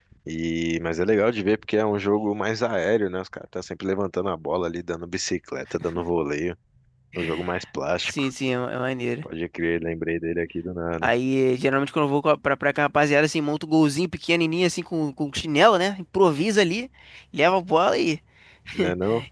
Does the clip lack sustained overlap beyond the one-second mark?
Yes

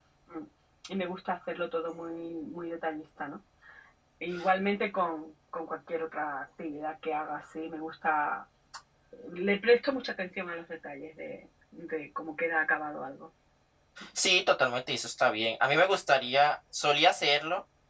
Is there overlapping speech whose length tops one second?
No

